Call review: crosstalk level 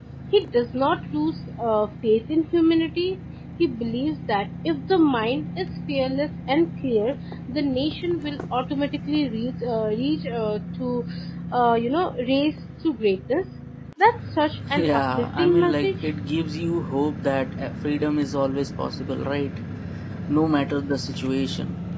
present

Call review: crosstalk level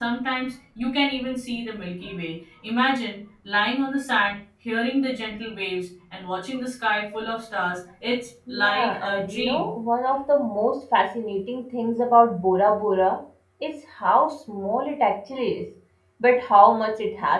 present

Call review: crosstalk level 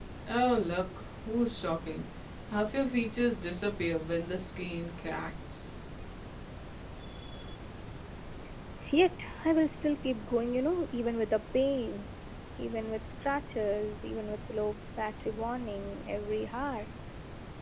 none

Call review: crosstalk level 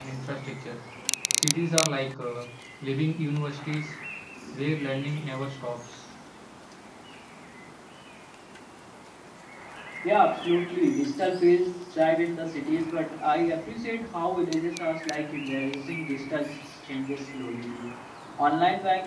none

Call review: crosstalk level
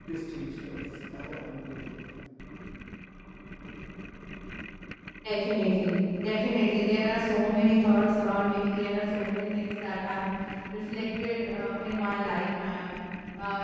none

